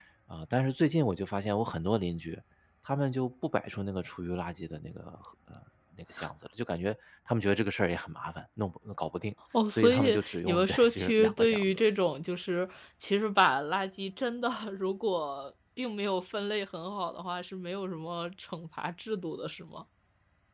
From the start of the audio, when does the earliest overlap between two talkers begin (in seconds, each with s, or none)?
9.7 s